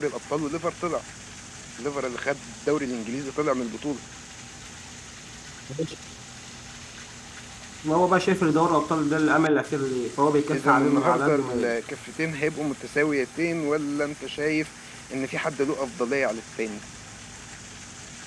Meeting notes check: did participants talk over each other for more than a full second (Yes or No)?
Yes